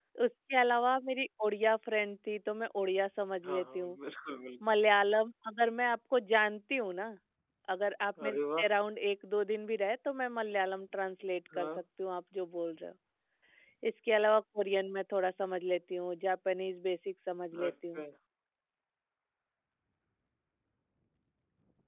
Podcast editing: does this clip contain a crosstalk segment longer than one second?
No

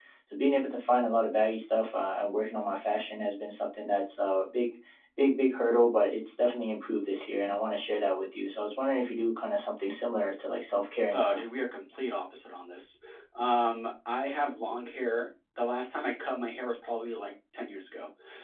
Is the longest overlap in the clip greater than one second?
No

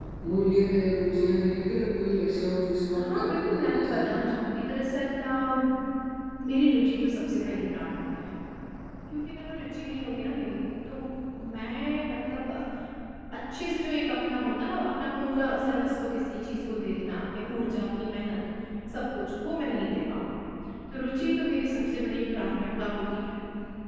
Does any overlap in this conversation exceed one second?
Yes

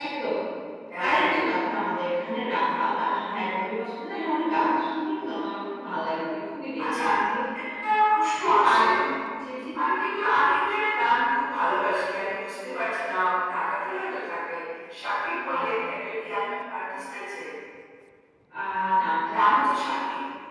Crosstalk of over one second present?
No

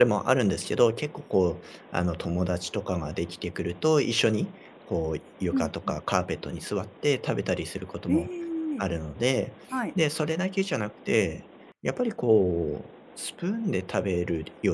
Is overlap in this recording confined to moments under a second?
Yes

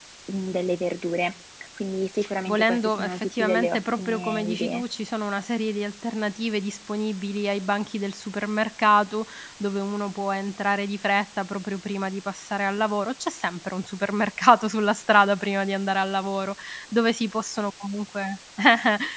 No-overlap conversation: No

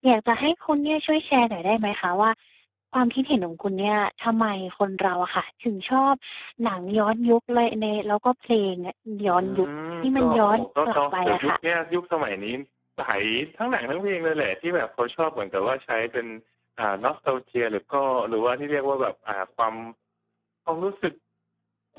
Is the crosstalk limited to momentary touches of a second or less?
No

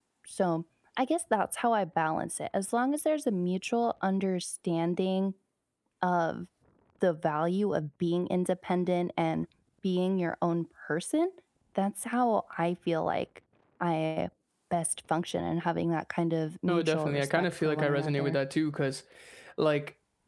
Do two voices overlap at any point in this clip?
Yes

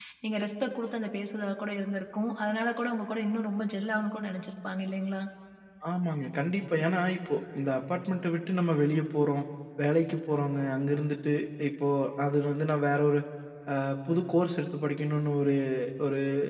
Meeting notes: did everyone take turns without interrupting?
Yes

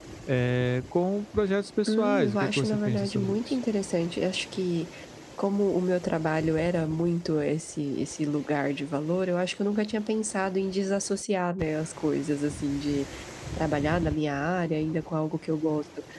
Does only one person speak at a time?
No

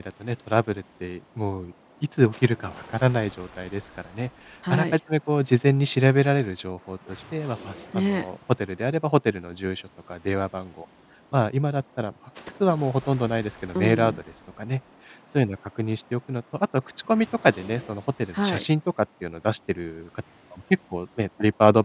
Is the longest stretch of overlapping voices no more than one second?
Yes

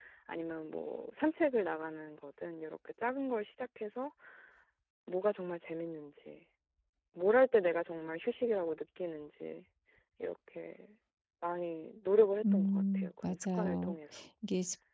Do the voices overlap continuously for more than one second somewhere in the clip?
Yes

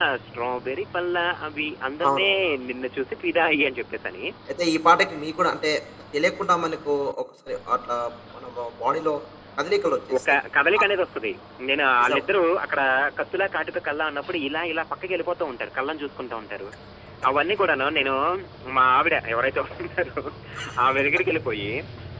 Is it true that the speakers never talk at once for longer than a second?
Yes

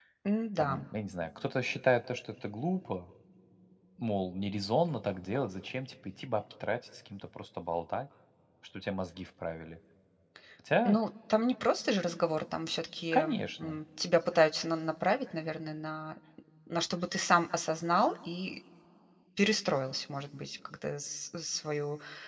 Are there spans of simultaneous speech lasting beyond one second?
No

